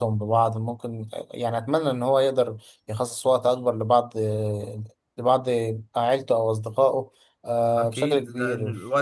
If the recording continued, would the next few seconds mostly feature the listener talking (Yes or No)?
Yes